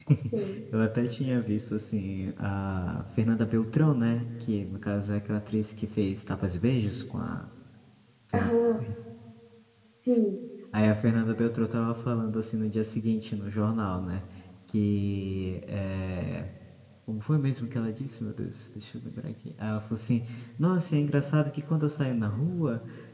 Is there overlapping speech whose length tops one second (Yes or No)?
No